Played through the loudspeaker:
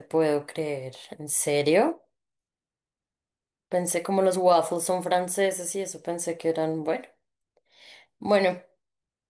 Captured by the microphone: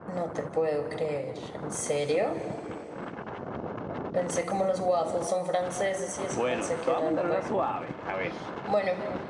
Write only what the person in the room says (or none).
Bueno, te voy a mandar una suave. A ver.